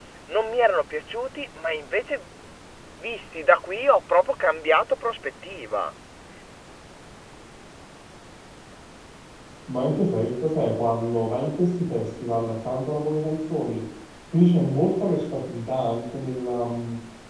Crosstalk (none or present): none